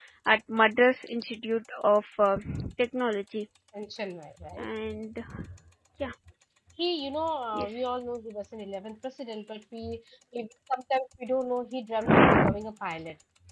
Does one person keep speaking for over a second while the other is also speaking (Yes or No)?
No